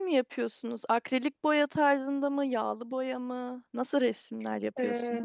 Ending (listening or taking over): taking over